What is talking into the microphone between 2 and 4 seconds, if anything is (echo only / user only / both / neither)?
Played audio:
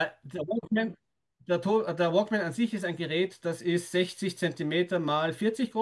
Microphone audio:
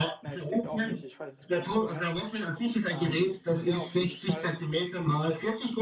both